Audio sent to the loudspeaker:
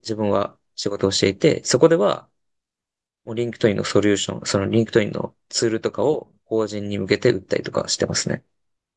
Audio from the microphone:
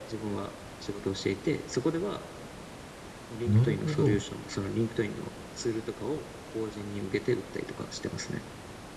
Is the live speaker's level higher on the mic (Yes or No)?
Yes